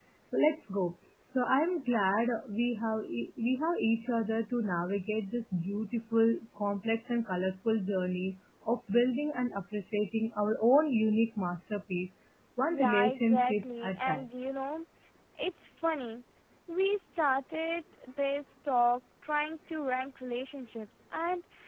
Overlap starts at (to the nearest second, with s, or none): 13 s